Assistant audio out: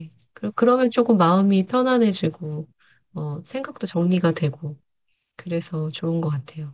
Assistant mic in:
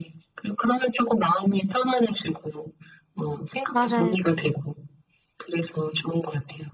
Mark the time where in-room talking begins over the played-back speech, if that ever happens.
3.7 s

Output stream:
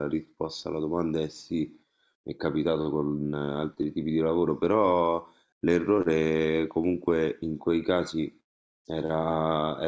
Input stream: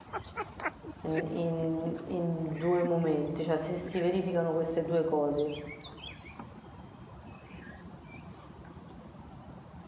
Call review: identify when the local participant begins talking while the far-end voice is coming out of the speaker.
1.0 s

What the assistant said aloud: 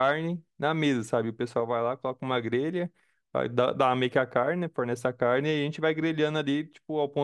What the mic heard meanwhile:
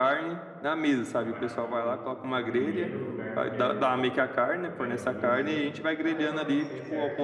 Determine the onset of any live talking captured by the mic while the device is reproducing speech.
1.1 s

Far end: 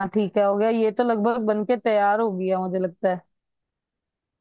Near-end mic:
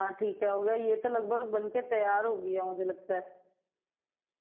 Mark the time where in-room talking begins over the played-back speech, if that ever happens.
none

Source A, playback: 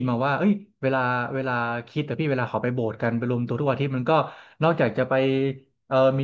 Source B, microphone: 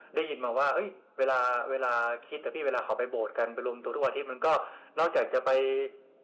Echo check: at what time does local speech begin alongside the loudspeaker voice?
none

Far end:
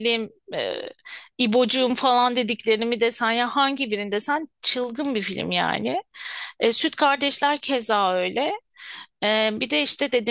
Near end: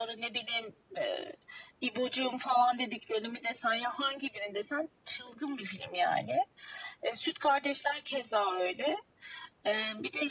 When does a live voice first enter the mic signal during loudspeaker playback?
none

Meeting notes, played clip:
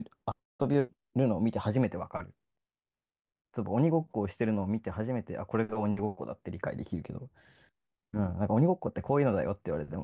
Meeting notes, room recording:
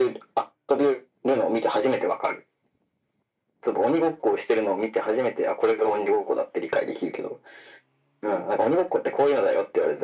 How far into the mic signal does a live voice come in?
none

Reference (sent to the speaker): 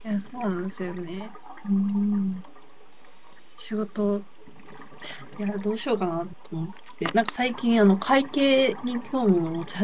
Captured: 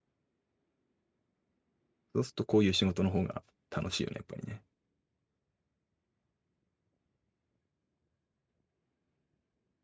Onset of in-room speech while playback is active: 2.1 s

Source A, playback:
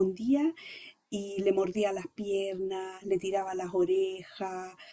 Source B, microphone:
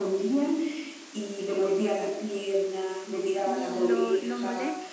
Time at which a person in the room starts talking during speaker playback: 3.4 s

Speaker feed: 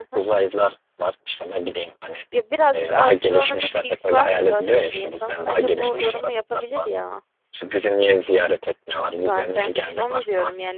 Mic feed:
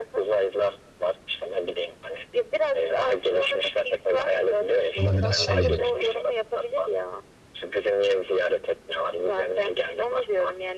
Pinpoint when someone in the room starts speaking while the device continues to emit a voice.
5.0 s

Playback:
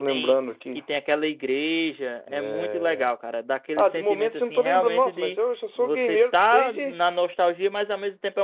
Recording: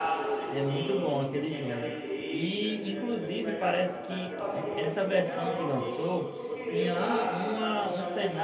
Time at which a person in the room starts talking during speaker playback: 0.5 s

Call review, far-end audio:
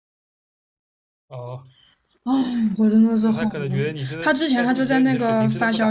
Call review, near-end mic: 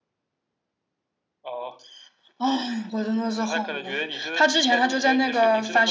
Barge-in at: none

